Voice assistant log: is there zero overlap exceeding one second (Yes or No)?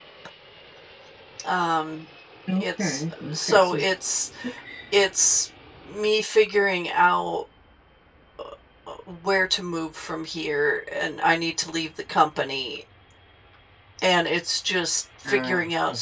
No